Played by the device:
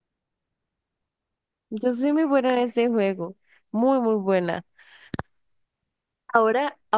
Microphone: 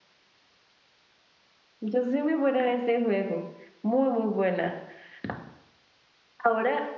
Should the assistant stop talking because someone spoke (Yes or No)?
No